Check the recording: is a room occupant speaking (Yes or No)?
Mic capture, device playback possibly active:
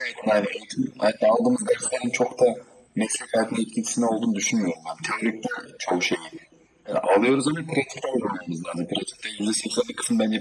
No